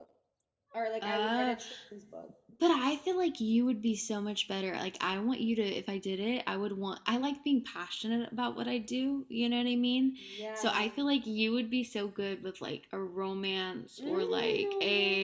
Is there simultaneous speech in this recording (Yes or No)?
Yes